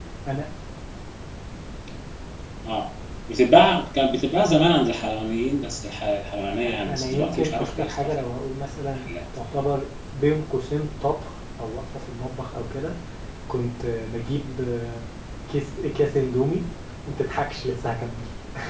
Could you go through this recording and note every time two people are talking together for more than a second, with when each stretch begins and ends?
6.8-8.2

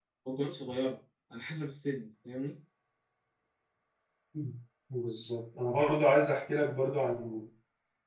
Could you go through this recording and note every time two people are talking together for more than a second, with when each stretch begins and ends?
none

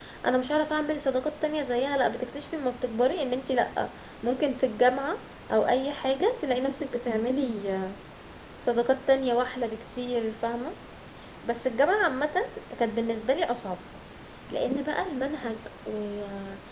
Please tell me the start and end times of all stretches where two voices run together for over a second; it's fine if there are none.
none

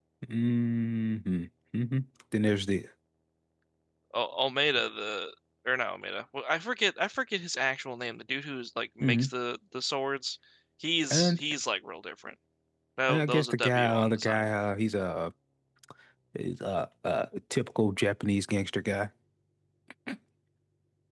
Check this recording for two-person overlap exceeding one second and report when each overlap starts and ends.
13.1-14.4

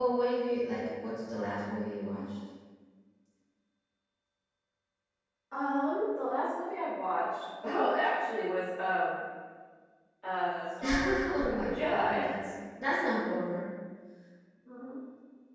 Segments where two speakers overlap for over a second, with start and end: 10.8-12.2

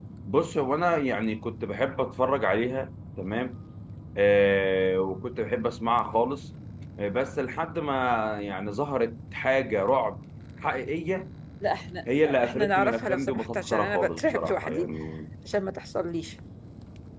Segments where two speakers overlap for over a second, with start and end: 12.2-14.9

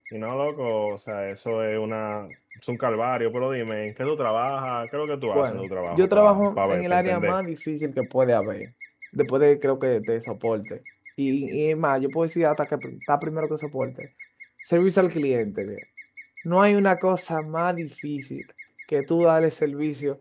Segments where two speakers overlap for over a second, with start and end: 5.3-7.4

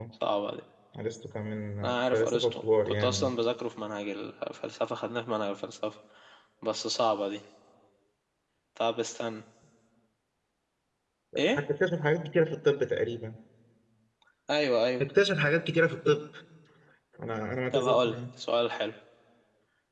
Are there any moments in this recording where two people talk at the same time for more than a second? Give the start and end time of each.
1.8-3.3

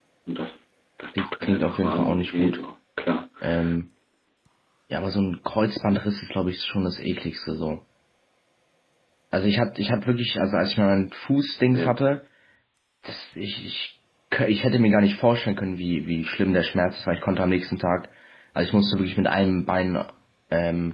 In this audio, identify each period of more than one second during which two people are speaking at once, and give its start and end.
1.2-2.6

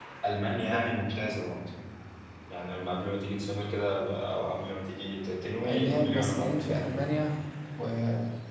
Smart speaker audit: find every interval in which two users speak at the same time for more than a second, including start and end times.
5.7-7.1

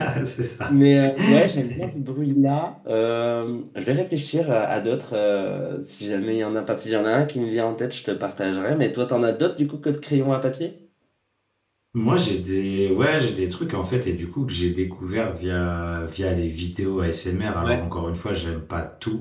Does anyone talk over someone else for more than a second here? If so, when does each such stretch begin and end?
none

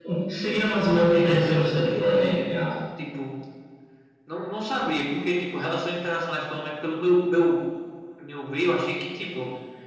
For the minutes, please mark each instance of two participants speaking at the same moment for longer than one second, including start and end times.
1.1-2.4

